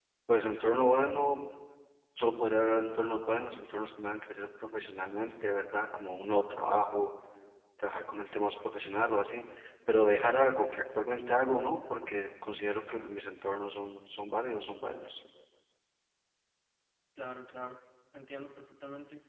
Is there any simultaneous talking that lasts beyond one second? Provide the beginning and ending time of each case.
none

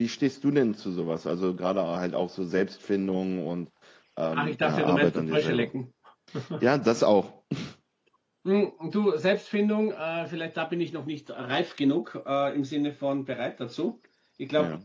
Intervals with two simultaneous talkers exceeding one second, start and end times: 4.3-5.7

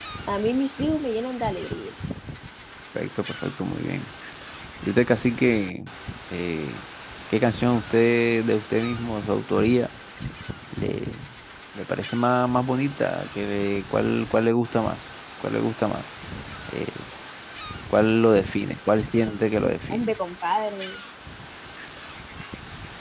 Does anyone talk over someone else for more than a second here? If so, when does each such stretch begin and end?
none

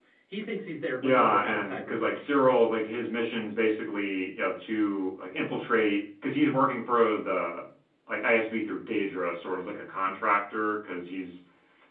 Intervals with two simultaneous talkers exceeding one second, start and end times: 1.0-2.3

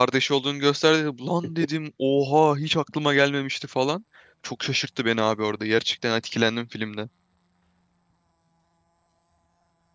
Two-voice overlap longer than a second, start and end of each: none

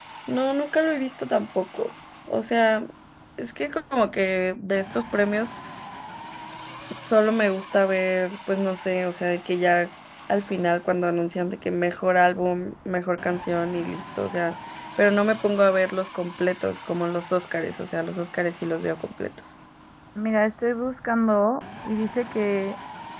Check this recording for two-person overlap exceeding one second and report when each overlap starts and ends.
none

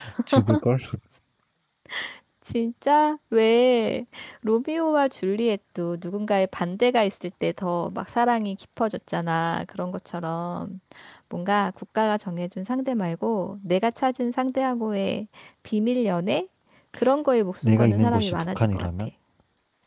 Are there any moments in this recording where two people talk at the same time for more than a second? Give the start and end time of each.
17.6-19.1

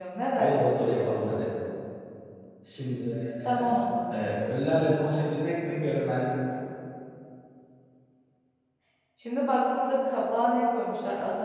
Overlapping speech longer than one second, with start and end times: none

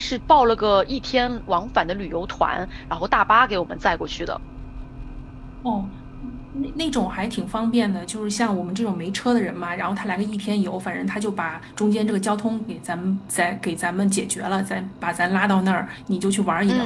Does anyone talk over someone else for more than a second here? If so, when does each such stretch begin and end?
none

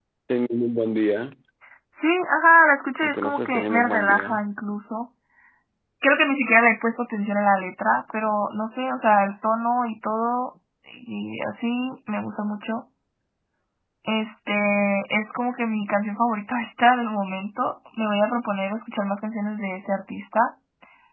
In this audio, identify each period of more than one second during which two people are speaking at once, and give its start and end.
3.0-4.5

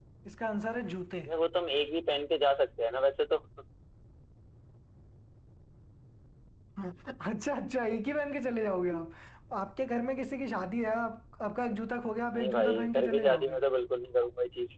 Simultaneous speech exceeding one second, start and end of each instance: 12.3-13.6

